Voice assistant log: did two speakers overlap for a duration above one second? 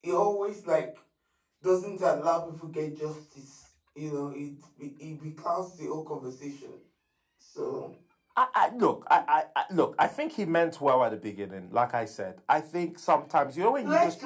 No

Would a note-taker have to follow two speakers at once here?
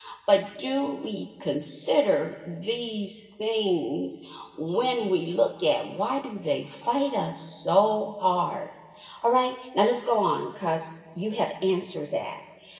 No

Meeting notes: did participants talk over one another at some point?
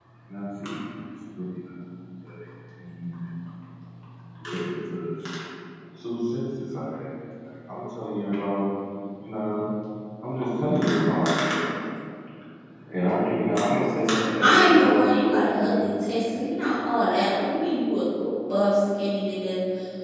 Yes, from 14.4 s

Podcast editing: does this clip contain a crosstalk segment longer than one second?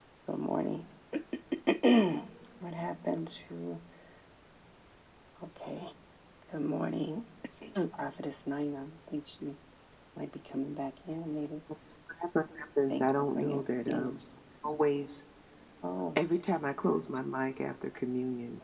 Yes, from 12.9 s

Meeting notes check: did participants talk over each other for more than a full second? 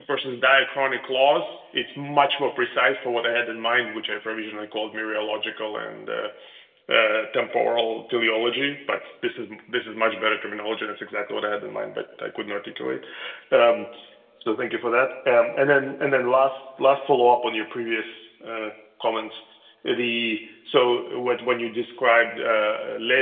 No

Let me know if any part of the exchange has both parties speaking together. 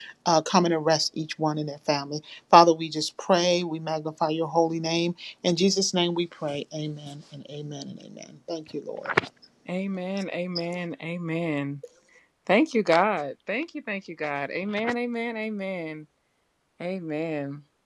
No

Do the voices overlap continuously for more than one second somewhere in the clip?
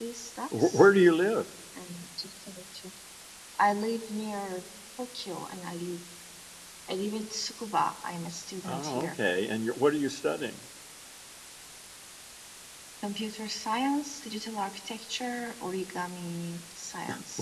No

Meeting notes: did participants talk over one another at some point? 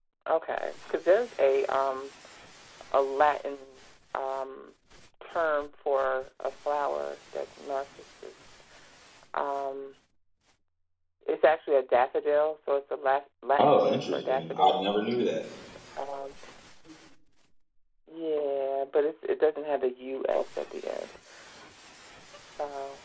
Yes, from 13.6 s

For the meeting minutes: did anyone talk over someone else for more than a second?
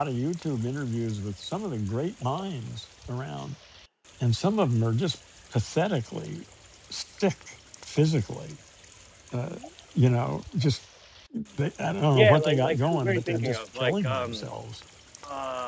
Yes, from 12.1 s

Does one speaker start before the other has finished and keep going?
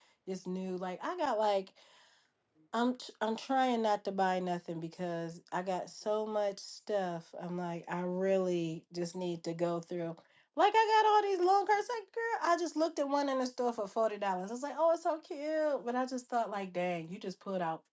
No

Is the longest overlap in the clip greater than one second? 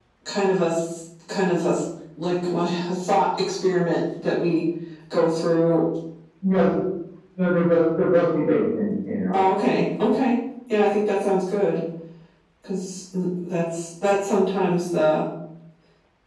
No

